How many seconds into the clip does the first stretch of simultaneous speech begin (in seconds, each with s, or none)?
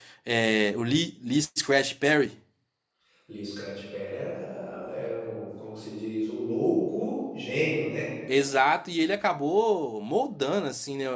none